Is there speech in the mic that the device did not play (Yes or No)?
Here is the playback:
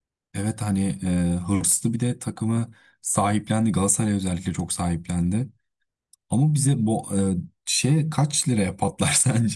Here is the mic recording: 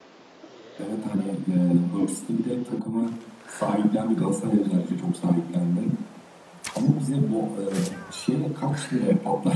No